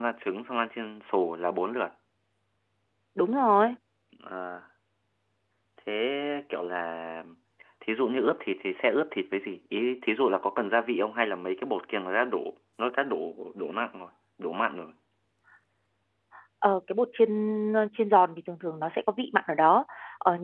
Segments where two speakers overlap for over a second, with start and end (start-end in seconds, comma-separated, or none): none